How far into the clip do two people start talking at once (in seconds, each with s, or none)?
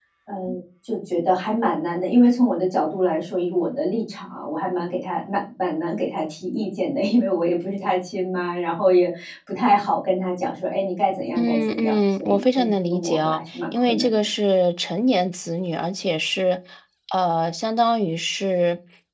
11.4 s